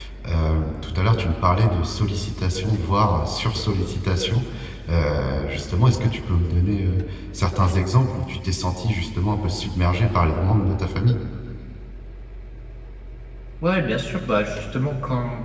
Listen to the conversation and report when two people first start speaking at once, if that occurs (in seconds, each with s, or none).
none